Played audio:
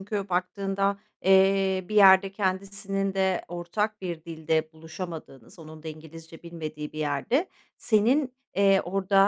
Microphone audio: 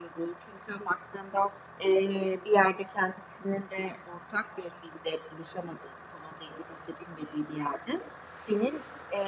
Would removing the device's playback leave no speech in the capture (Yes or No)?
Yes